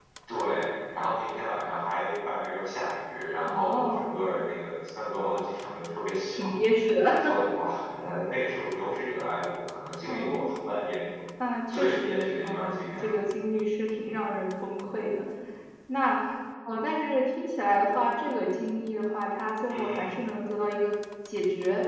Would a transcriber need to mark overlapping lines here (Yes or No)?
Yes